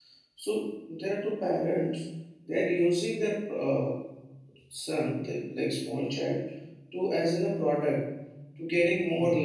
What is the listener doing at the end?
listening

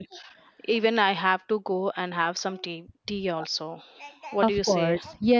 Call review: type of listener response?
taking over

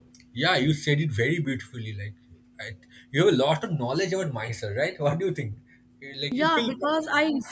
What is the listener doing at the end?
taking over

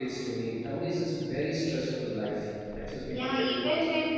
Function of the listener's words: taking over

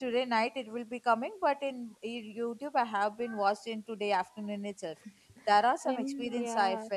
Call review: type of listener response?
listening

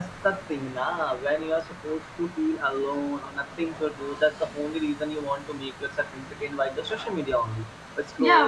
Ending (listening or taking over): taking over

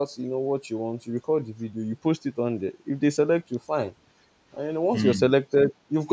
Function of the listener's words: listening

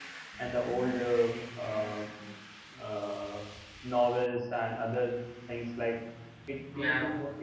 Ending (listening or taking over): listening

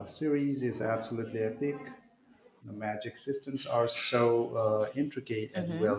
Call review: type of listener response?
taking over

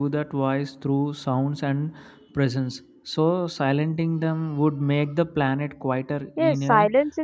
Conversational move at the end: taking over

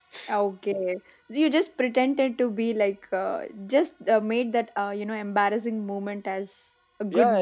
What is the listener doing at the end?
taking over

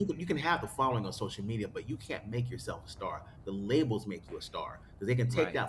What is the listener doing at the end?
listening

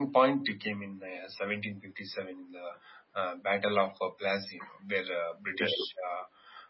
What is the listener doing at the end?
listening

